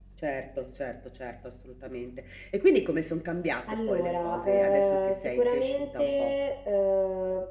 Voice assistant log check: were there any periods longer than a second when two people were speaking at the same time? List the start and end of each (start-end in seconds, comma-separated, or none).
3.9-6.3